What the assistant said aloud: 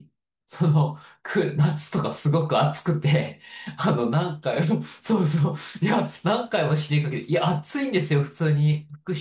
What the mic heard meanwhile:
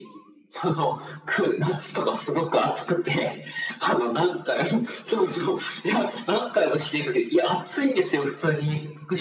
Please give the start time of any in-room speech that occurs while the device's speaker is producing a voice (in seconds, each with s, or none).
none